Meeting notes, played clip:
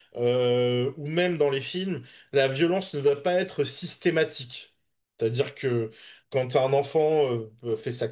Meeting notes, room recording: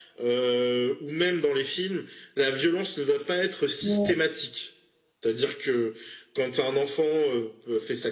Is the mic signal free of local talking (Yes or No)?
No